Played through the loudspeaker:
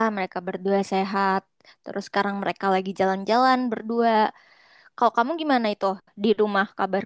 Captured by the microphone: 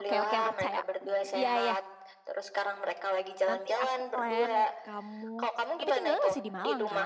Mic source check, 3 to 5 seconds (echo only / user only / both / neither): both